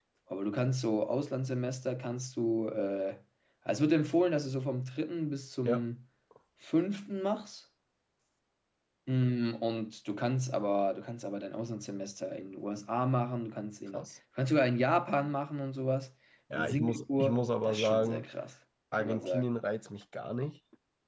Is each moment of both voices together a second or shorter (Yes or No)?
No